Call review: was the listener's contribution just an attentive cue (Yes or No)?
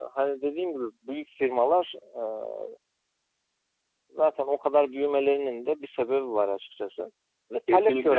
Yes